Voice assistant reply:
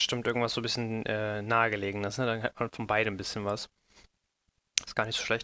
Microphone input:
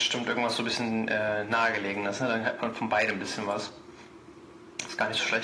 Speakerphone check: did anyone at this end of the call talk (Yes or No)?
No